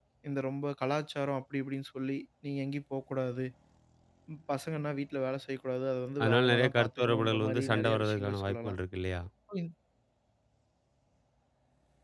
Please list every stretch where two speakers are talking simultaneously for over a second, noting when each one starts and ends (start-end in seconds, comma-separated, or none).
6.2-8.8